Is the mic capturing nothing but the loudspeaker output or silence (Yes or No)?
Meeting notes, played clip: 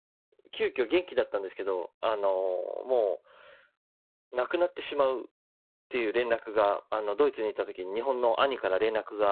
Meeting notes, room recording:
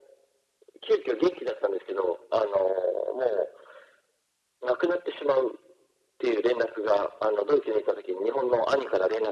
Yes